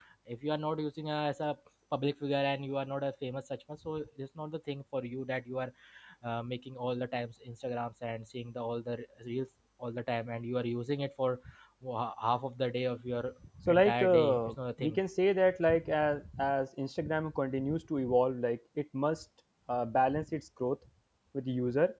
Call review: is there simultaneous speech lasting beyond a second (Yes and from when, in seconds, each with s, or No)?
Yes, from 13.6 s